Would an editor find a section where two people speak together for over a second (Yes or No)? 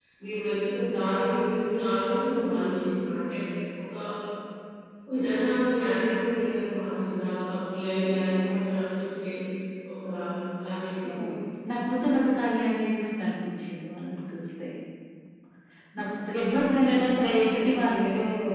No